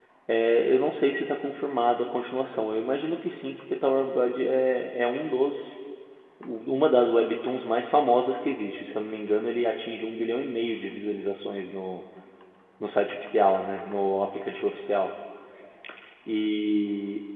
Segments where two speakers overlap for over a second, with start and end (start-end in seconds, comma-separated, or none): none